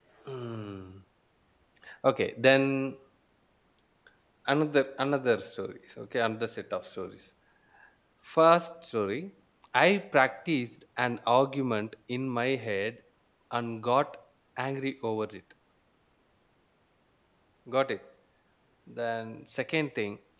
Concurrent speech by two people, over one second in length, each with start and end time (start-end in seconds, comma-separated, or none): none